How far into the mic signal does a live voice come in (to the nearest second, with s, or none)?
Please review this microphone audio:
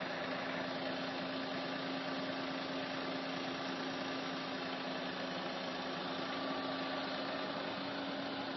none